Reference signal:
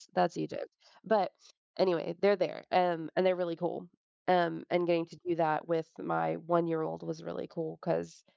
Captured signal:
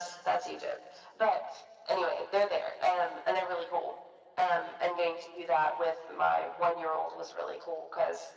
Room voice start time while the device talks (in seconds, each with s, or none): none